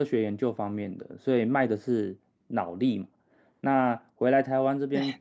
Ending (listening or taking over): listening